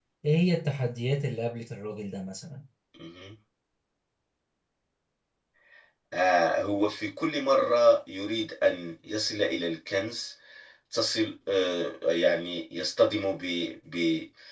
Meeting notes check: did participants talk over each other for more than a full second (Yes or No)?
No